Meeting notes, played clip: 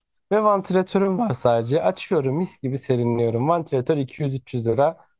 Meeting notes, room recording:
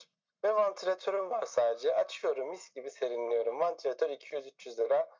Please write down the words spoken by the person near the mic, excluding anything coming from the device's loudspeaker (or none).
none